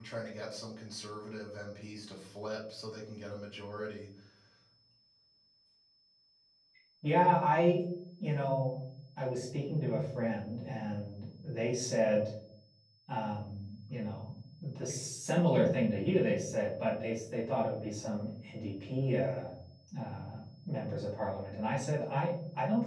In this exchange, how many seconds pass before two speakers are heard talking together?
none

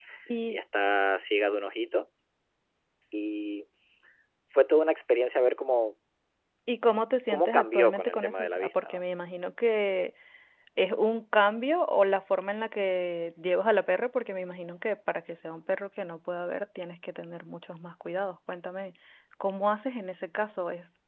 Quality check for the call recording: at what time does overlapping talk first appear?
7.3 s

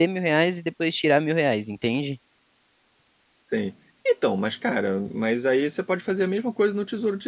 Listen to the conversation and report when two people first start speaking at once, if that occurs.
none

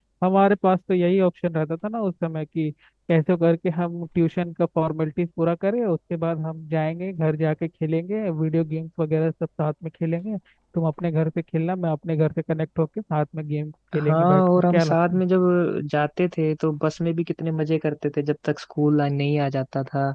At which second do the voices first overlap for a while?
13.9 s

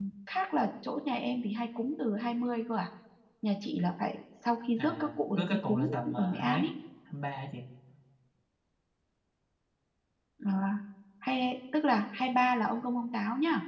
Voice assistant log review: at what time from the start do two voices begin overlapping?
4.8 s

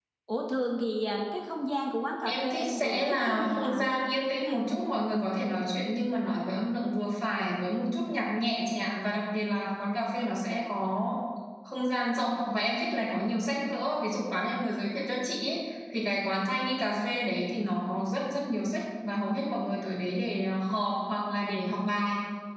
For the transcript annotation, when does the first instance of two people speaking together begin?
2.2 s

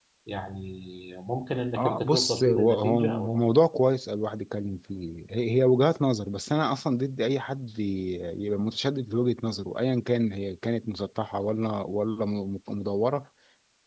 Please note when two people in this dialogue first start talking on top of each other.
1.8 s

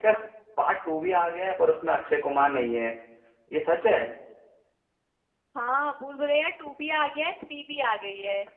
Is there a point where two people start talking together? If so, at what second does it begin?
none

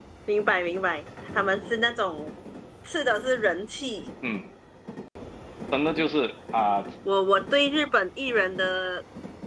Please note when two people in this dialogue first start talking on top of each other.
none

